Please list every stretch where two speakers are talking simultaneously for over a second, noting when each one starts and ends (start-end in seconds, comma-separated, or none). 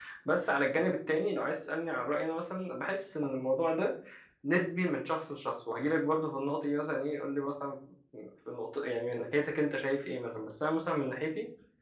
none